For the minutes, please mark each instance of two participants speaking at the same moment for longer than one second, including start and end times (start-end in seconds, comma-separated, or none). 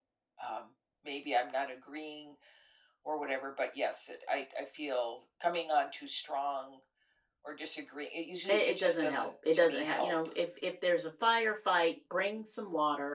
8.5-10.1